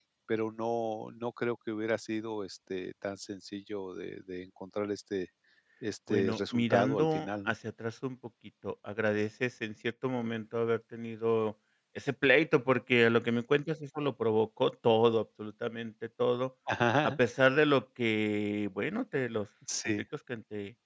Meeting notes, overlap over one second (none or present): present